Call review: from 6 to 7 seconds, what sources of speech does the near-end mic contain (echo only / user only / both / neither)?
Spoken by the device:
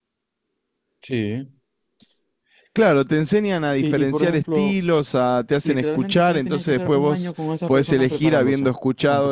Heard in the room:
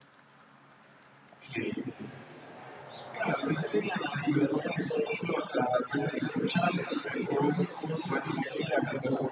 echo only